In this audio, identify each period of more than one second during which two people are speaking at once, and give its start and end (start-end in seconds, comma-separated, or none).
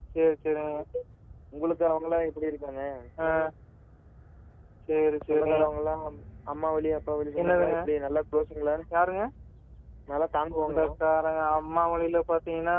none